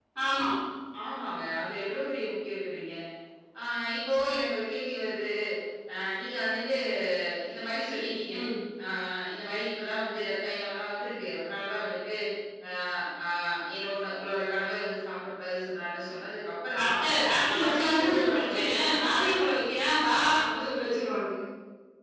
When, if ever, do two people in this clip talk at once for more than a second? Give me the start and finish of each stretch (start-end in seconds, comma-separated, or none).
17.5-19.5